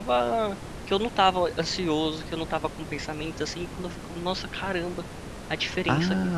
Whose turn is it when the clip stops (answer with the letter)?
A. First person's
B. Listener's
B